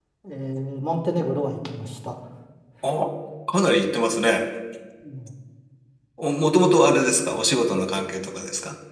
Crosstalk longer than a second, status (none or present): none